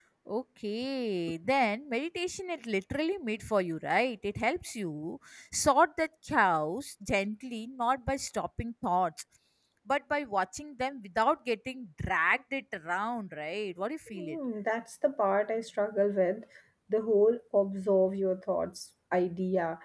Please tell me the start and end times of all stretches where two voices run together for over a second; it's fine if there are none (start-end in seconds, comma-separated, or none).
none